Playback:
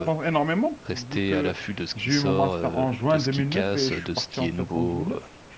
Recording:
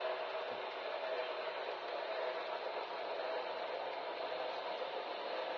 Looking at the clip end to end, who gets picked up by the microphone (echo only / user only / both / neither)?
neither